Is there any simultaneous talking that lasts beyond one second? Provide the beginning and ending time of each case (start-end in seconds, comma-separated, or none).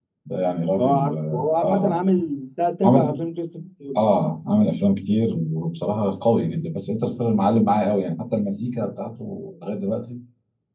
0.8-2.0